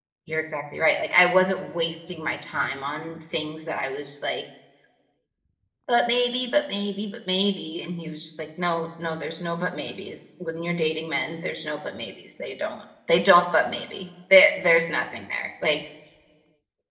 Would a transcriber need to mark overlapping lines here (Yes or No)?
No